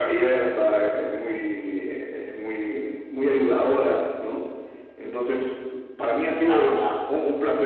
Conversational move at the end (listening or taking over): listening